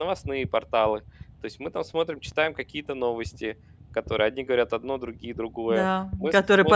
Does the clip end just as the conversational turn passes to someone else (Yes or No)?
Yes